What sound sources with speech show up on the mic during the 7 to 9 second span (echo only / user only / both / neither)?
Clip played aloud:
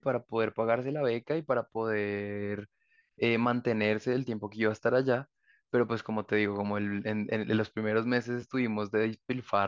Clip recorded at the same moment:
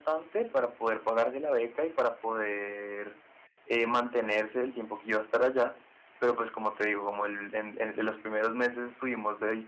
echo only